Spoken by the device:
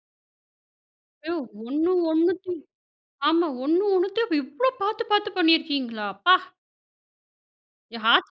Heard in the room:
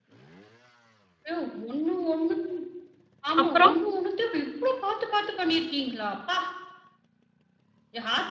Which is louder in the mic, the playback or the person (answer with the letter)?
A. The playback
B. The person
B